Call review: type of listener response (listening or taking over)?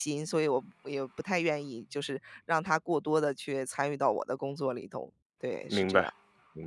taking over